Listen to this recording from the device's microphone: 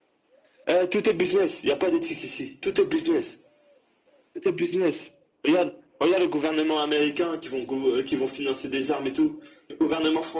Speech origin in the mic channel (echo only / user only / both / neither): echo only